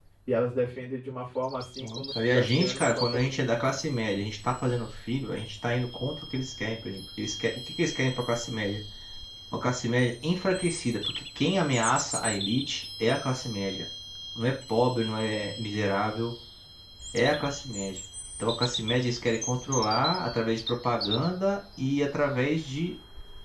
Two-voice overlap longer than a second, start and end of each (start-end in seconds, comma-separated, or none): 1.8-3.8